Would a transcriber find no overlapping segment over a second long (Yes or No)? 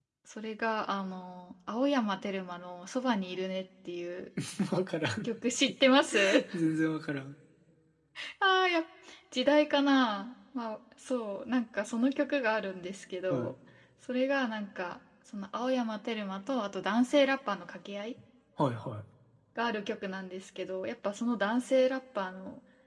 Yes